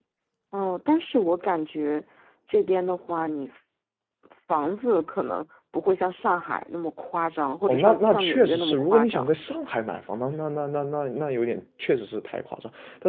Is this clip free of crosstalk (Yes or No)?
No